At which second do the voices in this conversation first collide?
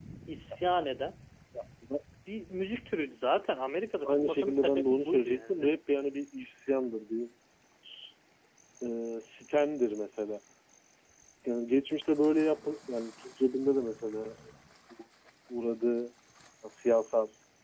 4 s

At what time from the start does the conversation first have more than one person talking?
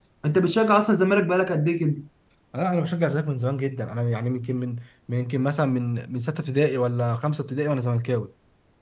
none

